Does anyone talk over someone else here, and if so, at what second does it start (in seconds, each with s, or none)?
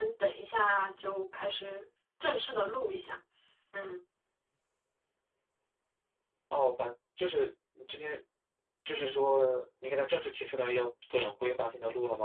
none